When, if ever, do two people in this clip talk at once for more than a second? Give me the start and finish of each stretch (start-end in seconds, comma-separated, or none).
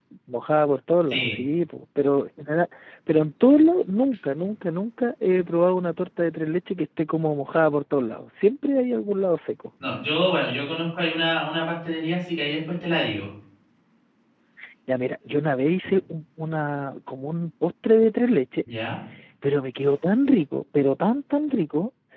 none